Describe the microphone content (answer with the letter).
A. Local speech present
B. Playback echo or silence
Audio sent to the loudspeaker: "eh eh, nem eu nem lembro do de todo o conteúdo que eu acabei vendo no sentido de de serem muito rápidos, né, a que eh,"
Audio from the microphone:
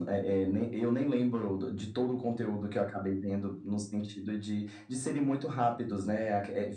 B